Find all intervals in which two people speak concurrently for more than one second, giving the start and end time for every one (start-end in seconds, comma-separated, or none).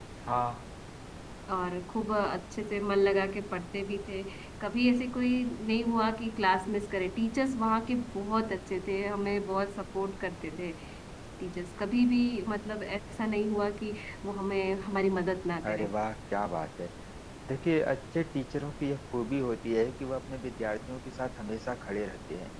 none